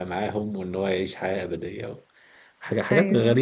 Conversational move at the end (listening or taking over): listening